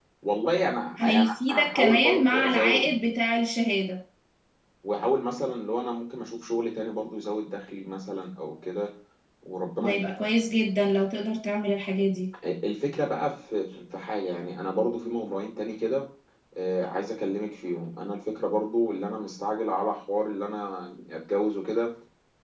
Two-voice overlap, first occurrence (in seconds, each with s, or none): 1.0 s